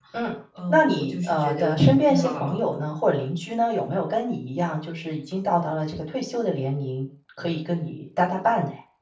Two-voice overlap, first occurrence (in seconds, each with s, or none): 0.7 s